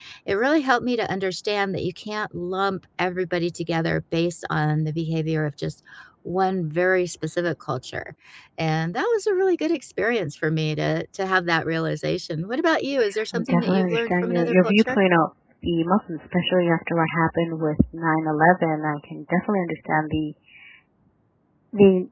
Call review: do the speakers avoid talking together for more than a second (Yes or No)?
No